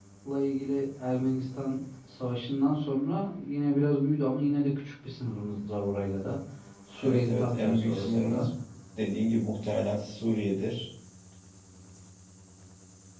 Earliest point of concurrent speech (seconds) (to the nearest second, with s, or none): 7 s